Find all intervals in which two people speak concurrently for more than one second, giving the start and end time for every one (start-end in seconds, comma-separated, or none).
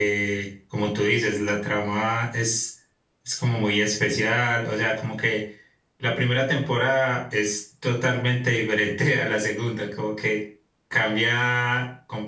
none